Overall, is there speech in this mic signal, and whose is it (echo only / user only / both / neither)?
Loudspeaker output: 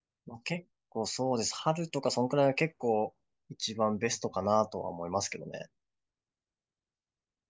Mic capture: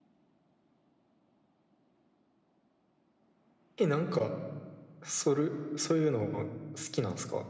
user only